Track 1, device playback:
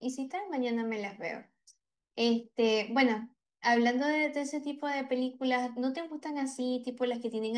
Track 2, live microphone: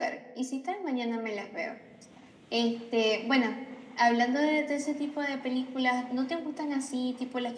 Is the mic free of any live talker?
Yes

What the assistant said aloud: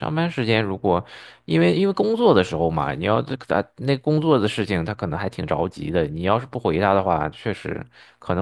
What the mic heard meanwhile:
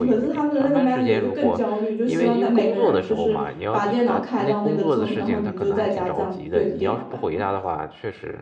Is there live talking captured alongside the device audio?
Yes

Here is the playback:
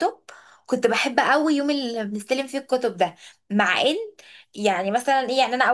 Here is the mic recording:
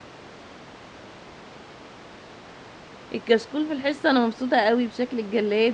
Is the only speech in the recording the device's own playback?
No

